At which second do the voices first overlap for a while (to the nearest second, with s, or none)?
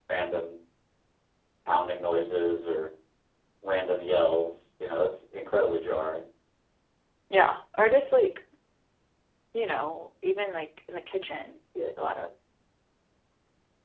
none